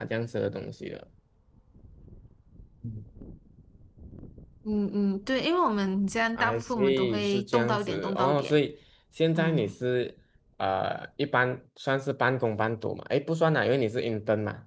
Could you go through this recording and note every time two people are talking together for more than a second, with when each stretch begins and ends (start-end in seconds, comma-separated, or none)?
6.4-8.6